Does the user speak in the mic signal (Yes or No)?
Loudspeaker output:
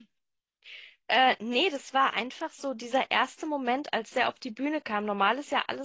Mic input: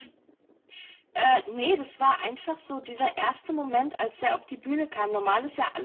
No